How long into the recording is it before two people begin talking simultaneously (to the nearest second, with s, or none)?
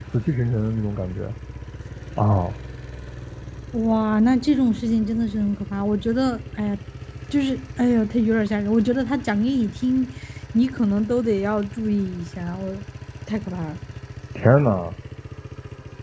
none